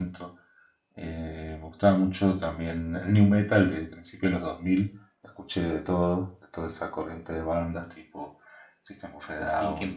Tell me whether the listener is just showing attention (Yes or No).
Yes